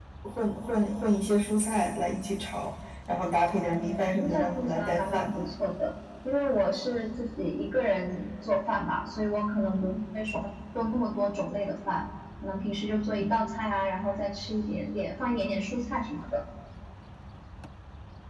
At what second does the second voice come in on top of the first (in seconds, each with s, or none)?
3.8 s